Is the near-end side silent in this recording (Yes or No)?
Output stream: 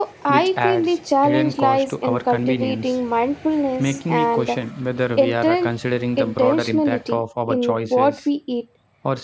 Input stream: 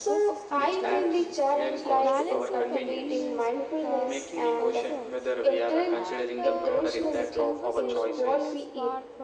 No